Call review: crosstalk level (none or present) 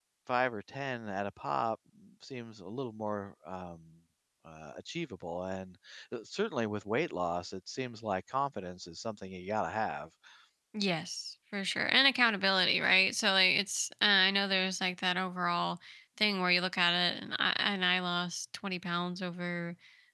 none